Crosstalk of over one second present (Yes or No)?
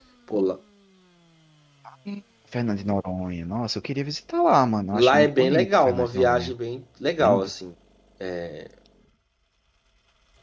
Yes